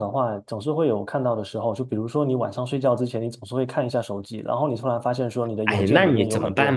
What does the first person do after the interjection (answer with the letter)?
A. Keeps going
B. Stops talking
B